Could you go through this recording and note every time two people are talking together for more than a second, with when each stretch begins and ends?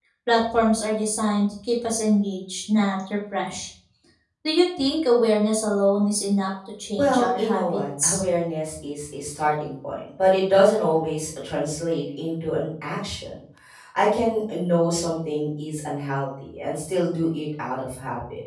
7.0-8.2

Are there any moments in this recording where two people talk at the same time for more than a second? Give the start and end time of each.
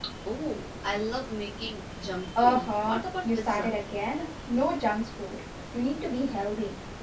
2.4-3.7

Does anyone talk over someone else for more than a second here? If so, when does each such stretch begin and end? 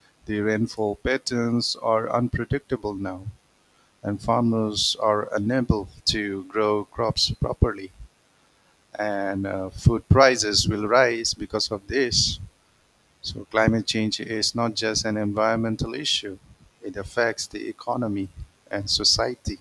none

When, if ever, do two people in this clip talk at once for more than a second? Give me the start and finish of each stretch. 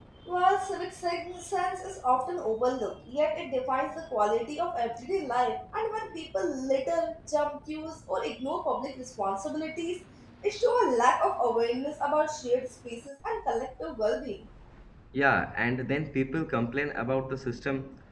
none

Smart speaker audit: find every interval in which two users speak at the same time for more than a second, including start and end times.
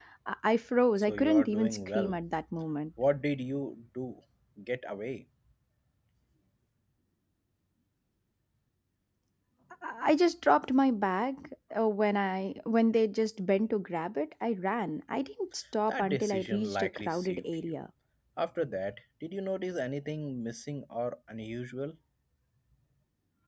1.0-2.2, 15.9-17.8

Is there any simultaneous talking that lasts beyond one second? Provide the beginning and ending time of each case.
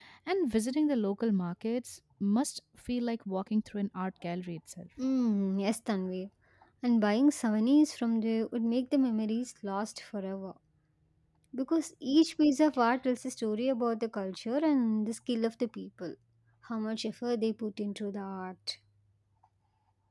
none

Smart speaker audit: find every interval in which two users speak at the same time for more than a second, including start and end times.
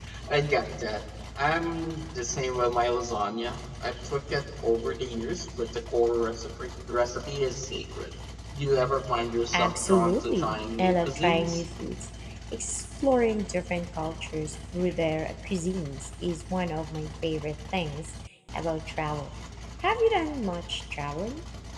9.5-11.6

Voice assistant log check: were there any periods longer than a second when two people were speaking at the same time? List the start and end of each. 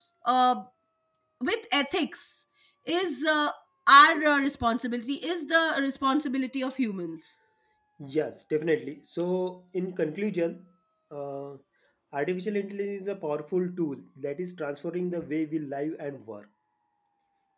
none

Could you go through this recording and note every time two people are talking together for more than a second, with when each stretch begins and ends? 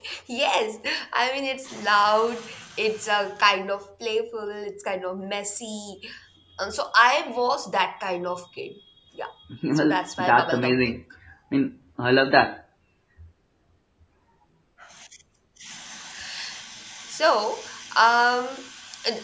9.8-11.0

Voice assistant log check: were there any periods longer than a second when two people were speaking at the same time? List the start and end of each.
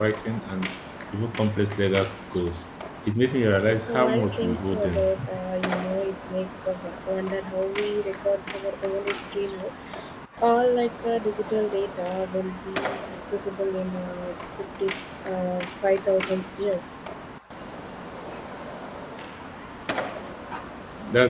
3.8-5.1

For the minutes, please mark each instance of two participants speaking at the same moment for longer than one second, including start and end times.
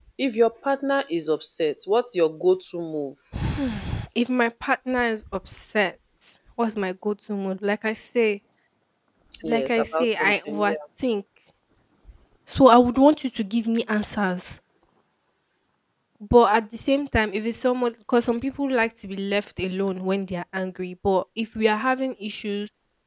9.4-10.8

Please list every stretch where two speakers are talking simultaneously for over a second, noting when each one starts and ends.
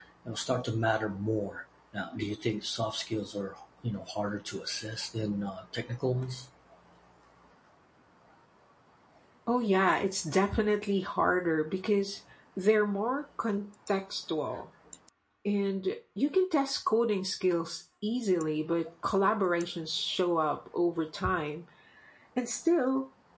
none

